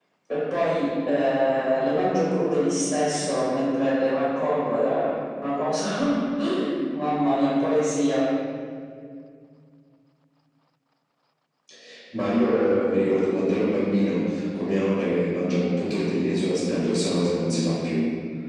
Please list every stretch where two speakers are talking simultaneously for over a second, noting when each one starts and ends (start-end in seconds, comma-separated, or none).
none